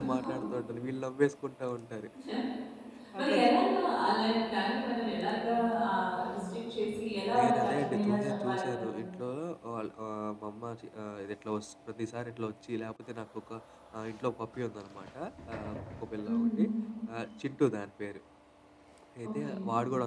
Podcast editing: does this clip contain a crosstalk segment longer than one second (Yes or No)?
Yes